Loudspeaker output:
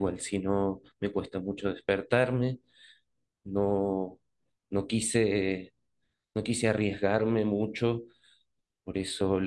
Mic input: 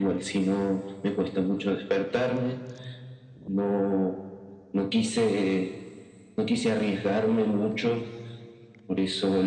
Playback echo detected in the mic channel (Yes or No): Yes